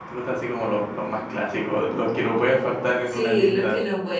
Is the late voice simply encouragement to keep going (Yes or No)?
No